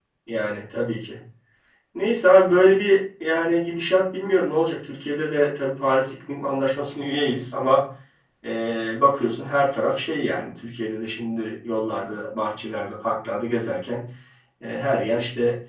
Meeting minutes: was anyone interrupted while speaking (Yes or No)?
No